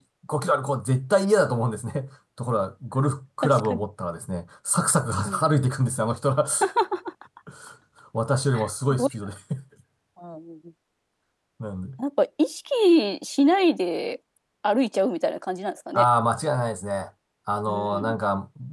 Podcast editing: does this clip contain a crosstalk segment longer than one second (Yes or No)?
No